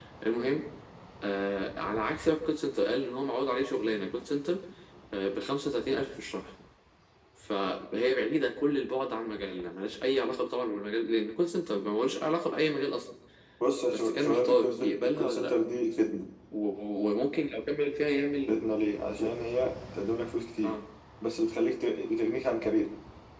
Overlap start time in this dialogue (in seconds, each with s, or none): 13.8 s